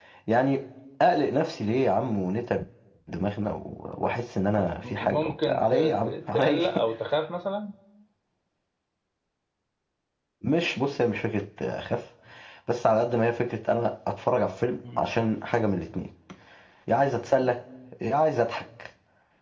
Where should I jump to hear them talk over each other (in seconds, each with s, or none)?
4.8 s